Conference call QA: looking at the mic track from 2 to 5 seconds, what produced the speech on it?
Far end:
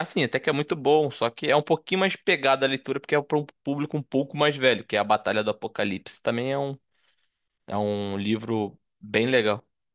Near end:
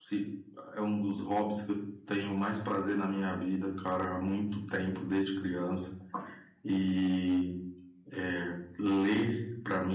user only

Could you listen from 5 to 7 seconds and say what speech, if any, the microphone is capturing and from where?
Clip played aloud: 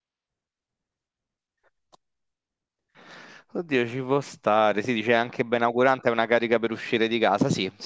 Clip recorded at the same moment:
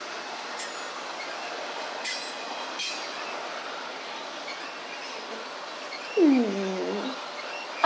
user only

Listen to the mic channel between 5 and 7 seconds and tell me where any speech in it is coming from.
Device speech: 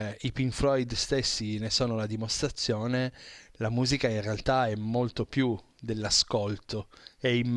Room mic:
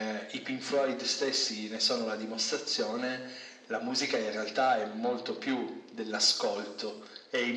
echo only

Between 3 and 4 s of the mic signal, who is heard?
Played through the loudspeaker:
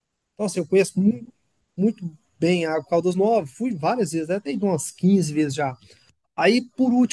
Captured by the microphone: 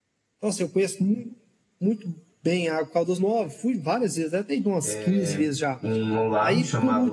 echo only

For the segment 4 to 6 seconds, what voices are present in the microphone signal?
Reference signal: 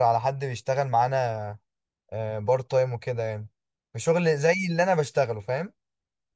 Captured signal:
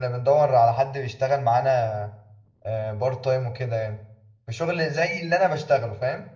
echo only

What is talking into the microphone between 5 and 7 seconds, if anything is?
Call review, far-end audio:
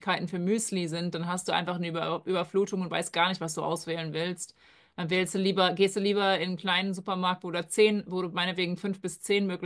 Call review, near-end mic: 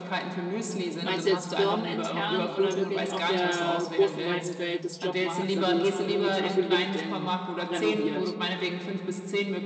both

